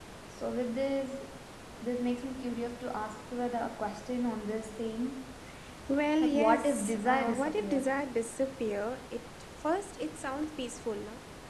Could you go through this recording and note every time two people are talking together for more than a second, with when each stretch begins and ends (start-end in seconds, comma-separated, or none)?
6.2-7.9